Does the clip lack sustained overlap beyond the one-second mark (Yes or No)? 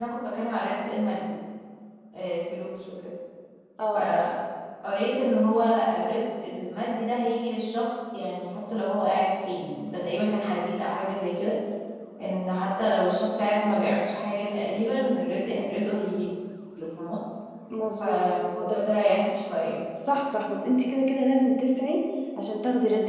Yes